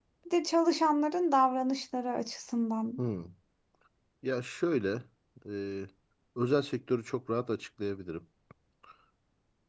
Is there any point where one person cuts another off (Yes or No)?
No